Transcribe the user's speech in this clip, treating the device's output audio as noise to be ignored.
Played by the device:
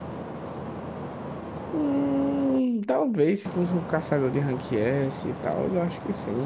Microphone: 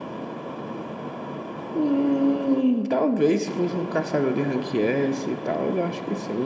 none

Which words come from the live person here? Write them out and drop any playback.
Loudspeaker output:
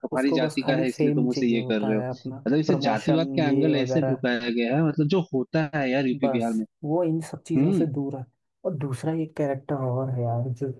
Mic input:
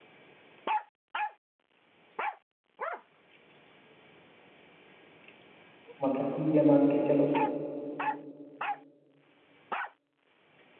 मतलब कि ये मान के चलो

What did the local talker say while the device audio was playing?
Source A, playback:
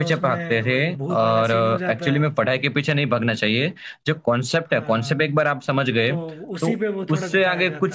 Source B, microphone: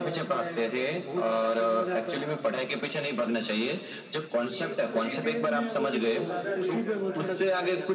कि उसी फेज में है वो भी तो ज्यादा रिलेट कर पा रहे थे

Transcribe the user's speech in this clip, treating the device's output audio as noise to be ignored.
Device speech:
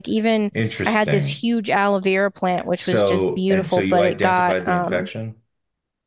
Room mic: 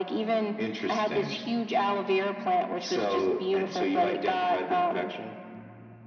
none

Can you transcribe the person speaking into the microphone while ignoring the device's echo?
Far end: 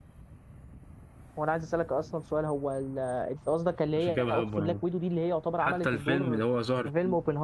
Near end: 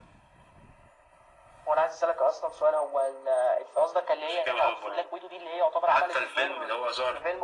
none

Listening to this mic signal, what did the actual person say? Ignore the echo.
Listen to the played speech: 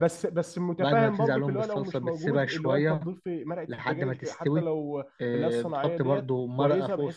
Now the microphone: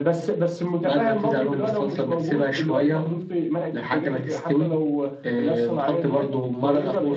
none

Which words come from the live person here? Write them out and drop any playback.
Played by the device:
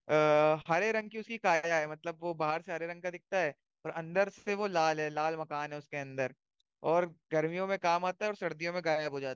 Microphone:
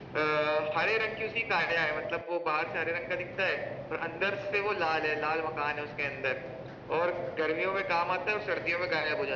none

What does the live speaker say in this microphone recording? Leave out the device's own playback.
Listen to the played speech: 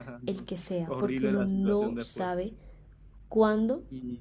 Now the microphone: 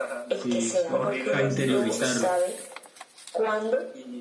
Sí, sí, a interiorizarlo.

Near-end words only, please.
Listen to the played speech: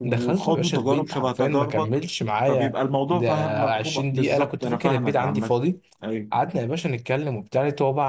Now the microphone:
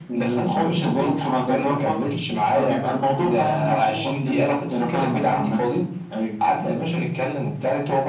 none

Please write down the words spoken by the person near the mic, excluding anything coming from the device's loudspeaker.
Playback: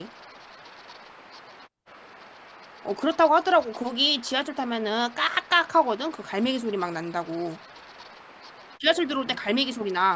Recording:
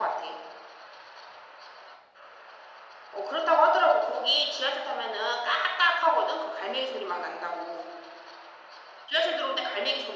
none

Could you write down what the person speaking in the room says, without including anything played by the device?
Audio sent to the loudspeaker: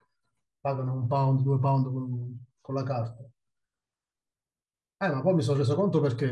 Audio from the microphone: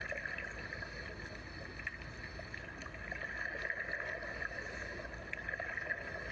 none

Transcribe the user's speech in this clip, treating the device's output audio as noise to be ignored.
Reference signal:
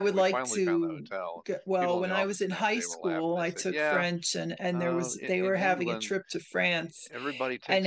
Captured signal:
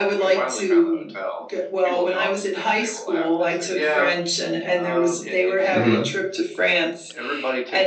hmm

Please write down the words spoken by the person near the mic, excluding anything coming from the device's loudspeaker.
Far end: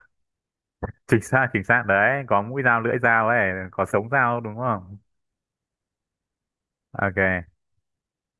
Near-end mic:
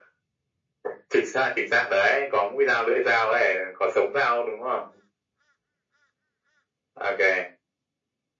none

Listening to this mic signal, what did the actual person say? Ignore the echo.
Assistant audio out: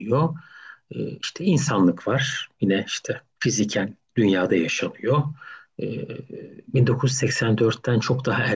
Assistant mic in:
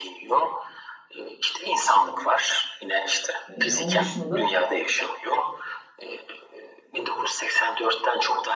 Ee, onun dışında da

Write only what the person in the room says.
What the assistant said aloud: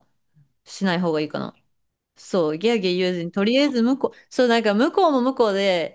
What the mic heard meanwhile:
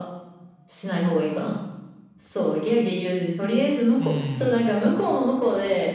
うん。

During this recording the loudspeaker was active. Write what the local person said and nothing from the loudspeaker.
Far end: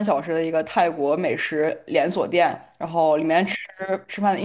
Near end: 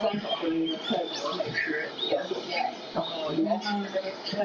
哇，

